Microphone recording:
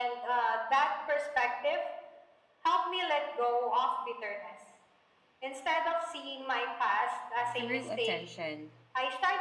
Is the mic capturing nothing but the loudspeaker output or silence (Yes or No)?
No